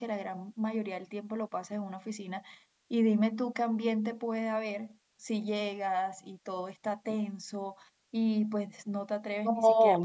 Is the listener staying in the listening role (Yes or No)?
No